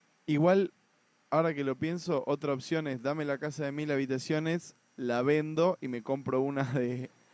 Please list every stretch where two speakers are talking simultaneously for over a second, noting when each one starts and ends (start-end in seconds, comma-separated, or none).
none